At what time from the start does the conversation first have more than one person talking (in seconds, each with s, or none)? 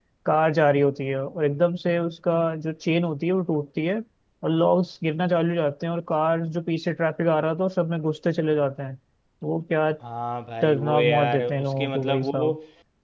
10.6 s